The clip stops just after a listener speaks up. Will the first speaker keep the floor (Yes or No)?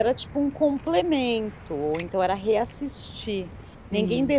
Yes